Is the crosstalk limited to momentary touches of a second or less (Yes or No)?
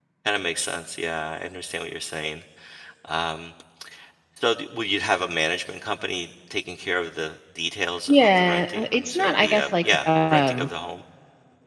No